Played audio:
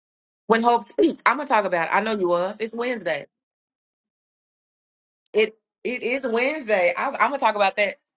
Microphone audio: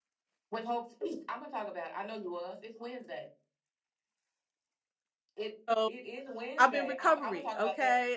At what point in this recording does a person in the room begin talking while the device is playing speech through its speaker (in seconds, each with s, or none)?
5.7 s